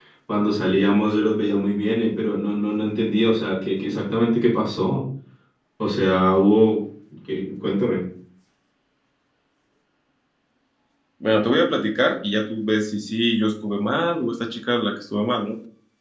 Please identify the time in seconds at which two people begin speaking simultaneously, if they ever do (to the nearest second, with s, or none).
none